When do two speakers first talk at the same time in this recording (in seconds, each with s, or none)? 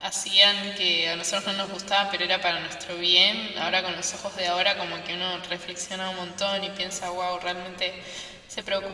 none